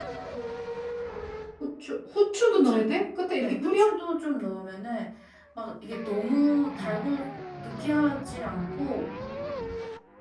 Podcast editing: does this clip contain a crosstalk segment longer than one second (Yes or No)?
No